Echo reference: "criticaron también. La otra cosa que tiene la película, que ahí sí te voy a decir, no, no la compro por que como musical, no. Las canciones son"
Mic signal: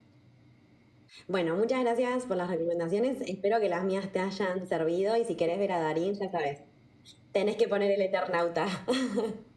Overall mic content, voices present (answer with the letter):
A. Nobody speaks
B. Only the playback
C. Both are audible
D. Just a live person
D